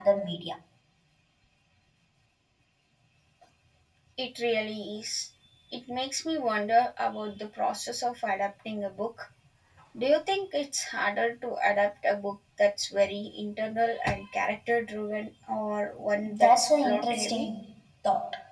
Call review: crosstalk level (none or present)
present